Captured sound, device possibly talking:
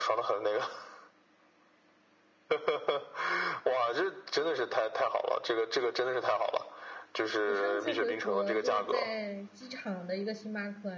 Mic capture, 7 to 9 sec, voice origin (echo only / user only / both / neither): both